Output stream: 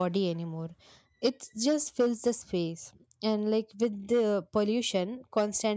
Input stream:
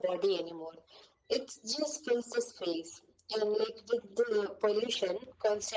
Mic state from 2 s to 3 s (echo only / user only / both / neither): echo only